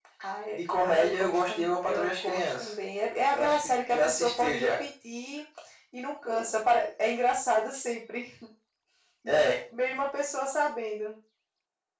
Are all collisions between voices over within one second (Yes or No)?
No